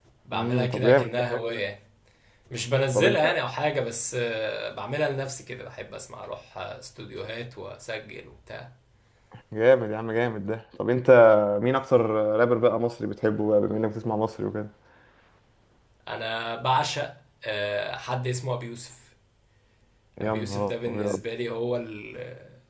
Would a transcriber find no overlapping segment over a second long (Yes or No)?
No